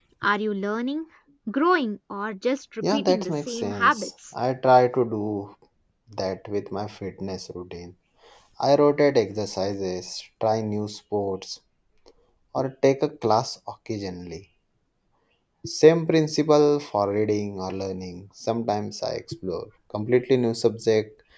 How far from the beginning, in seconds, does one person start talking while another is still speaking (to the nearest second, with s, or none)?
3 s